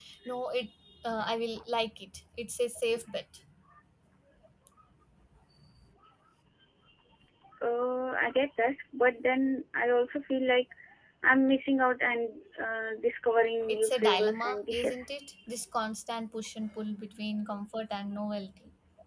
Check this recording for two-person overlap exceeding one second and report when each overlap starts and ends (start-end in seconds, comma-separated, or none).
13.7-15.1